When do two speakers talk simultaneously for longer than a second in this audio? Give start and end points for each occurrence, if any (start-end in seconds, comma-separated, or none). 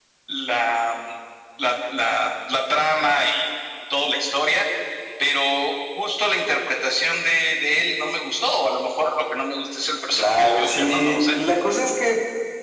10.2-11.4